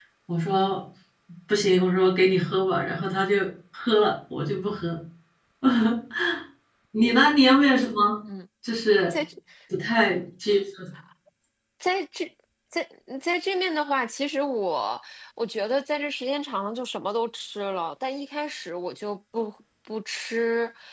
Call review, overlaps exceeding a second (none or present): none